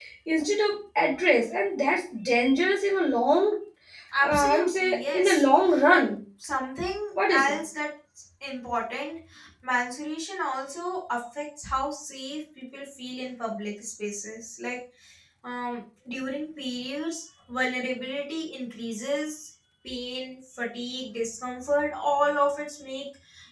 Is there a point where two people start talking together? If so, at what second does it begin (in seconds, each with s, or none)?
4.2 s